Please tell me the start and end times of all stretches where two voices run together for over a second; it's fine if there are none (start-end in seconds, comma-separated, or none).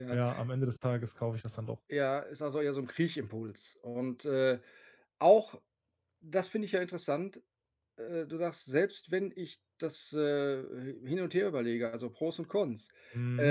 none